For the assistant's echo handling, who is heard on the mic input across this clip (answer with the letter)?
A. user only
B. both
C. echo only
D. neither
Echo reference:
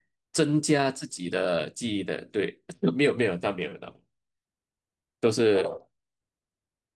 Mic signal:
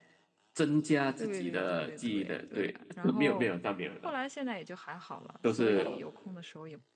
B